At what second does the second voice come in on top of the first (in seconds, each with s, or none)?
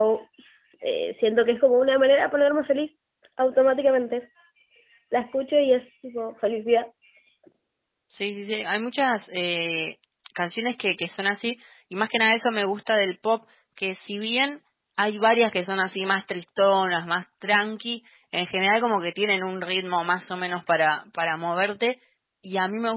none